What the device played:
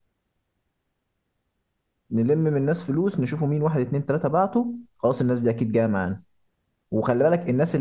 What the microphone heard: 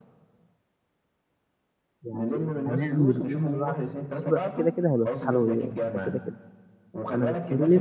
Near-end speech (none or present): present